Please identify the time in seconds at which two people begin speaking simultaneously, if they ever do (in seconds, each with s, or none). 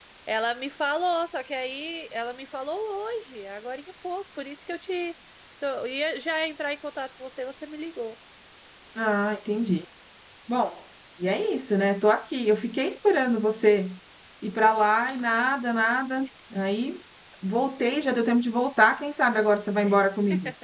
none